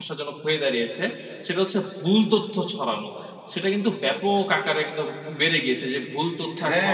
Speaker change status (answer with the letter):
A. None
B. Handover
B